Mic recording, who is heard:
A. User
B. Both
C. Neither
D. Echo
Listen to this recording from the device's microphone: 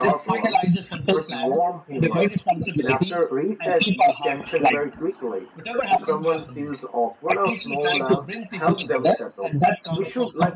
B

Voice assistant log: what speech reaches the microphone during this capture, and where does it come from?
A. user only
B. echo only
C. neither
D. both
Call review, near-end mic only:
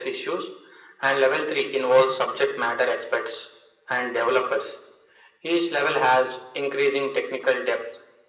B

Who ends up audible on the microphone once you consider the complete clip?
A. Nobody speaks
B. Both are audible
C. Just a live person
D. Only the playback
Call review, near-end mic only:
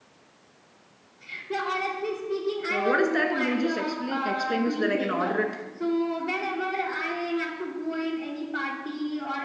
B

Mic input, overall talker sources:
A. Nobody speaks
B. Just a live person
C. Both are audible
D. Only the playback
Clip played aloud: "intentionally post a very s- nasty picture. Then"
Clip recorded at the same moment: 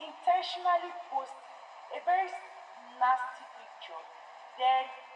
D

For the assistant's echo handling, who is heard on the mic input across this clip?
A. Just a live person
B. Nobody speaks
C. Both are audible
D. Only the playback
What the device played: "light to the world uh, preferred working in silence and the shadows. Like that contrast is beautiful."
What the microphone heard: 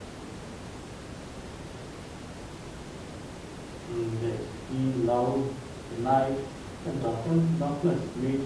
A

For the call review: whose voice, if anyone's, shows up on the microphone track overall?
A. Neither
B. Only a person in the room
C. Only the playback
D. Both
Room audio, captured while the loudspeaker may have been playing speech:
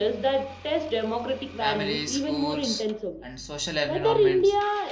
D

